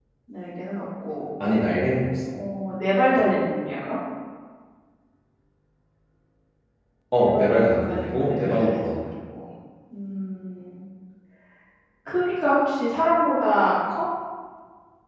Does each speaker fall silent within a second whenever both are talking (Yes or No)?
No